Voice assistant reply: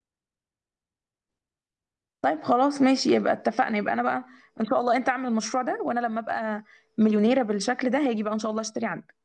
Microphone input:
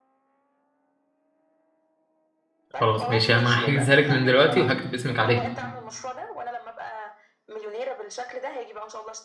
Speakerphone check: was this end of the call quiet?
No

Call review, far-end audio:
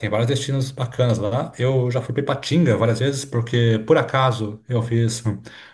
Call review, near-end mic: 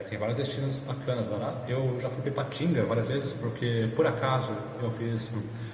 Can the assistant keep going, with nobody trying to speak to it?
Yes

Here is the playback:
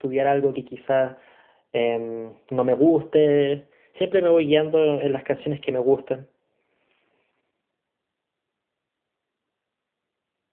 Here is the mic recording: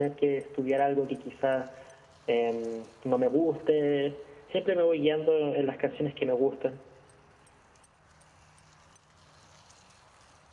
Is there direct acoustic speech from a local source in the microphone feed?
No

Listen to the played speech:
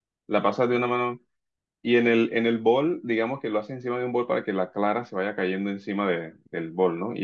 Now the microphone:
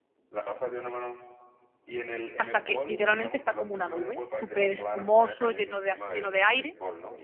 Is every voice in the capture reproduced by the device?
No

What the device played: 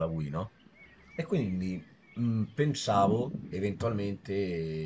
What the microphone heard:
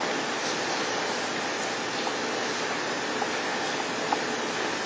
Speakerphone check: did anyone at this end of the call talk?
No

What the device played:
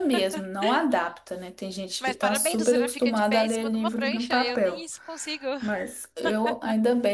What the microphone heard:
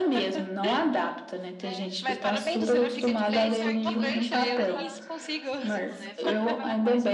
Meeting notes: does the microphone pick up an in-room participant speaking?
Yes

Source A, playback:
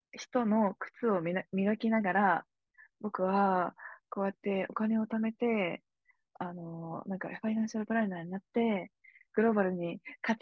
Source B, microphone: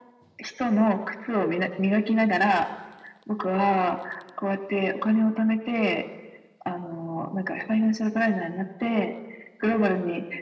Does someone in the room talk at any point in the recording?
No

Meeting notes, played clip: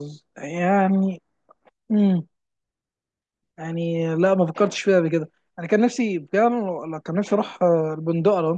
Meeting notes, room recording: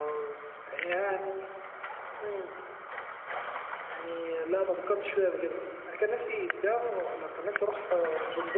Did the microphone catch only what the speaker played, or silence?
Yes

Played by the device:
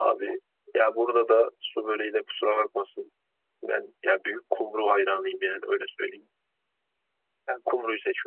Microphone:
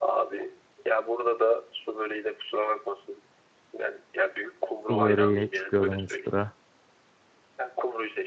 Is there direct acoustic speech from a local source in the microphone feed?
Yes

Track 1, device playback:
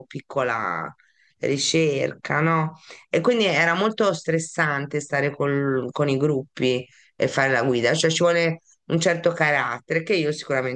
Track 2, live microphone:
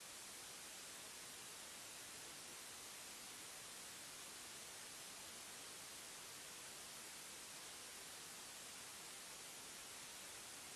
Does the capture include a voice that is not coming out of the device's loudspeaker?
No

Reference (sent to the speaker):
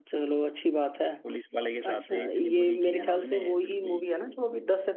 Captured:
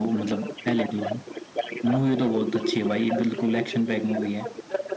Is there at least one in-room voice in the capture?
Yes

